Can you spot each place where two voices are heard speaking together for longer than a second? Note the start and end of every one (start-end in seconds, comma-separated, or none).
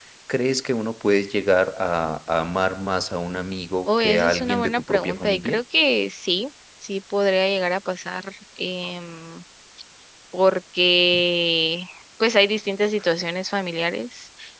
3.9-5.6